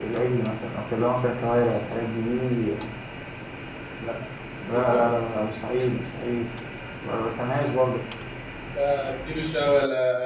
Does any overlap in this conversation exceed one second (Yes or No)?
No